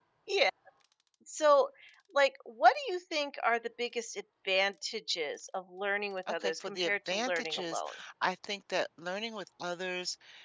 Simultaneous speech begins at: 6.3 s

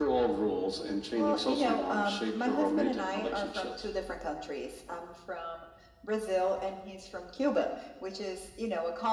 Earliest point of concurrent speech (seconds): 1.2 s

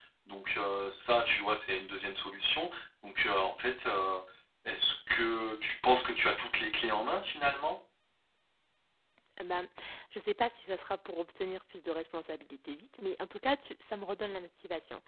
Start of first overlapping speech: none

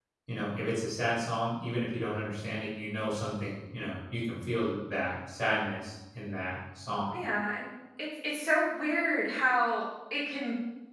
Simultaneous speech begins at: none

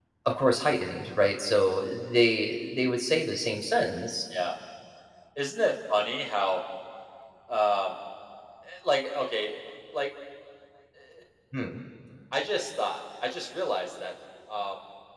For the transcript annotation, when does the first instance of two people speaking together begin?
none

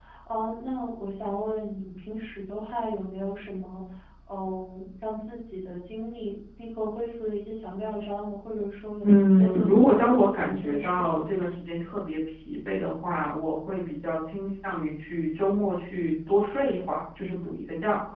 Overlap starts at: 9.0 s

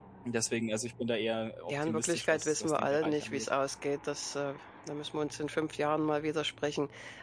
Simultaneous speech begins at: 1.7 s

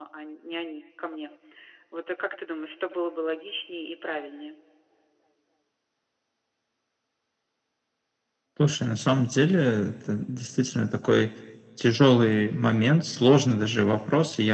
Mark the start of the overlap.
none

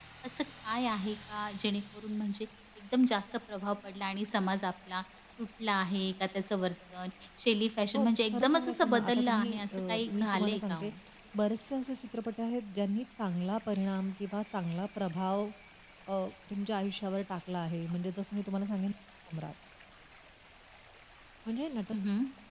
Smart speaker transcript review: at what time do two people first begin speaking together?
8.0 s

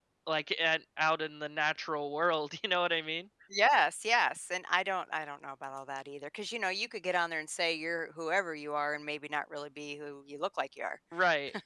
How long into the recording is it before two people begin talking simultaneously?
none

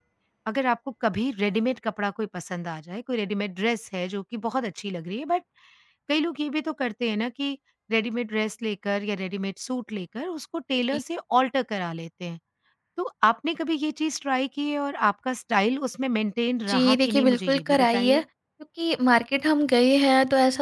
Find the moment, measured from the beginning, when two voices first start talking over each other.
16.6 s

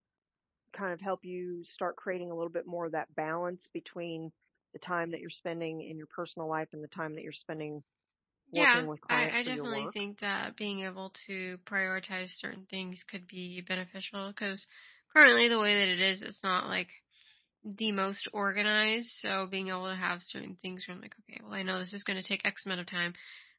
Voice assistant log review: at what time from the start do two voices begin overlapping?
8.6 s

